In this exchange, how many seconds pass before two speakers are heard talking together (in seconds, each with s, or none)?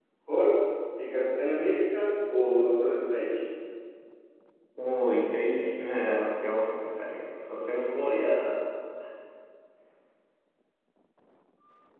none